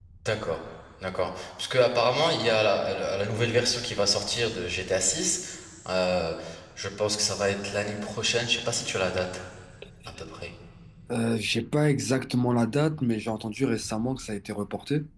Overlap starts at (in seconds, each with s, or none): none